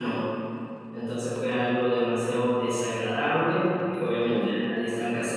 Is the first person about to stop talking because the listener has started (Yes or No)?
No